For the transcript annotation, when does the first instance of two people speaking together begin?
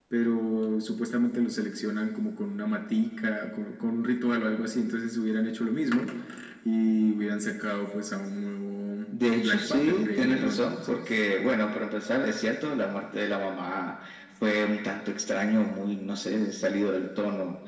9.4 s

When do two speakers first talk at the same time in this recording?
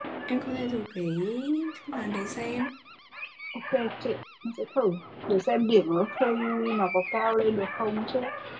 none

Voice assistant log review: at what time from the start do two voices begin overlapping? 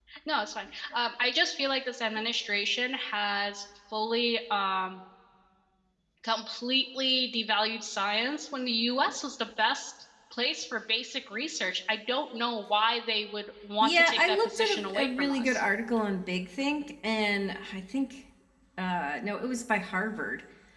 13.8 s

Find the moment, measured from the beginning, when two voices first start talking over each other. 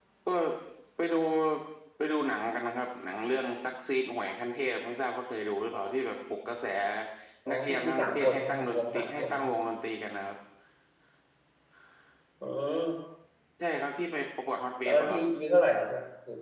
7.5 s

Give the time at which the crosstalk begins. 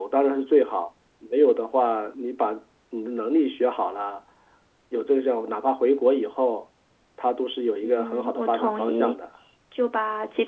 7.8 s

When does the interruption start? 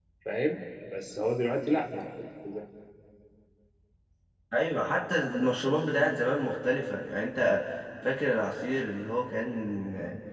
none

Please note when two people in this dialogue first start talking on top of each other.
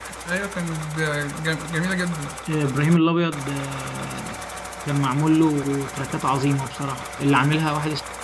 none

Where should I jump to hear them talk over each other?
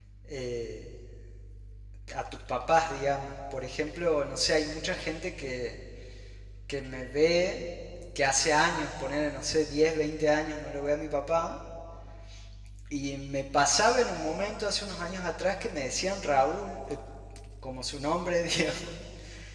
none

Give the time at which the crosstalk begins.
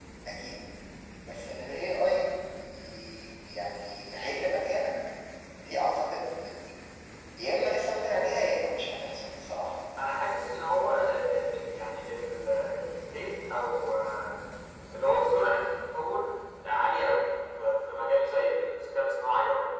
none

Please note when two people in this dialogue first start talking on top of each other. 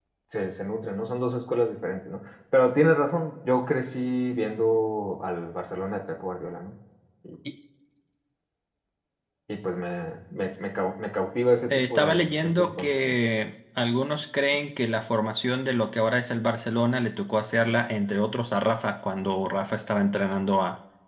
11.7 s

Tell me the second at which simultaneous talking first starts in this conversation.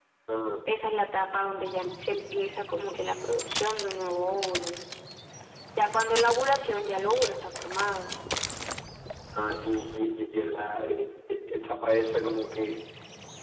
none

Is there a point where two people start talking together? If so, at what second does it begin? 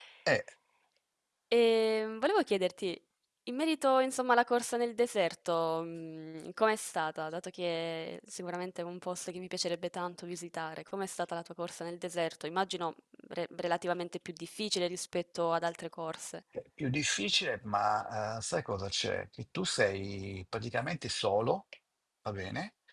none

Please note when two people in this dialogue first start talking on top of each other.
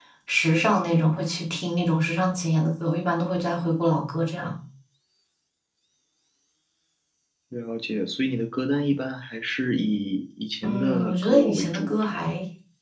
10.6 s

